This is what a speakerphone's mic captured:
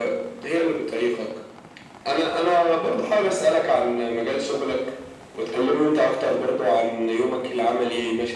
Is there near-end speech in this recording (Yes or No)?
No